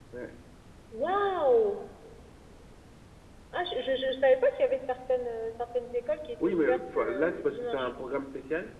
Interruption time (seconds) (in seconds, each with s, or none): 6.4 s